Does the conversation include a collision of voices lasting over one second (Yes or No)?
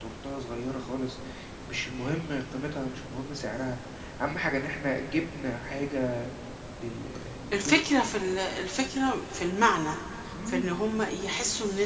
No